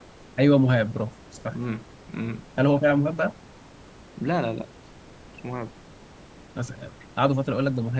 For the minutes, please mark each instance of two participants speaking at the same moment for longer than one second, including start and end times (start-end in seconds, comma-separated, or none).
none